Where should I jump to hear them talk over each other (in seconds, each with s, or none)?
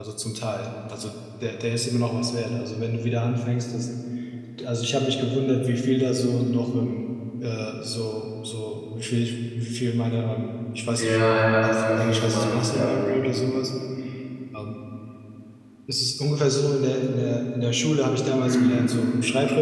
11.0 s